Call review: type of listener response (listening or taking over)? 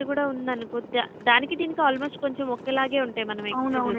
taking over